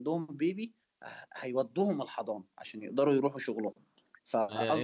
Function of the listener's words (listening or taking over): taking over